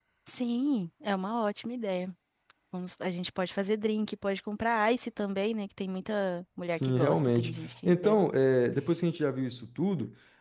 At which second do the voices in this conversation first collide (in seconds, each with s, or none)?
6.7 s